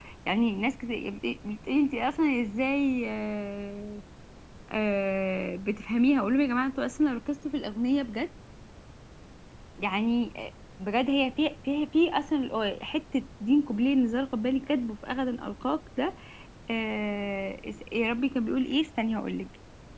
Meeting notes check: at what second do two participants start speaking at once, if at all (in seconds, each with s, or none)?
none